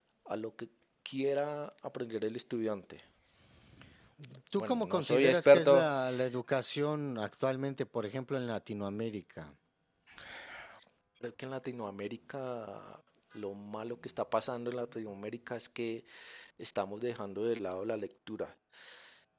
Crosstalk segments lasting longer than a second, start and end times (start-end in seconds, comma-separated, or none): 4.6-5.9